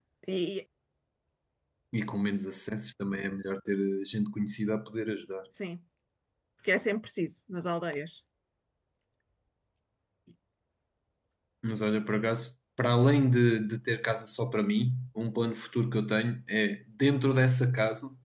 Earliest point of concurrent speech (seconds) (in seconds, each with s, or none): none